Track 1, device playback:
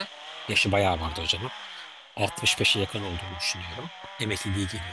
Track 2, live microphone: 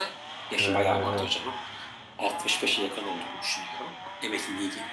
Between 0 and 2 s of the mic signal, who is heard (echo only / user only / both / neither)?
both